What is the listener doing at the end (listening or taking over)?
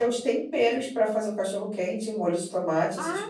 taking over